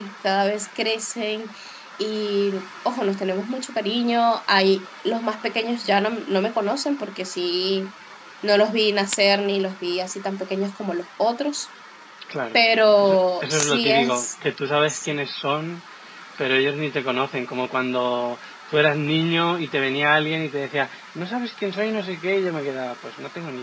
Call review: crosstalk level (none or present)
present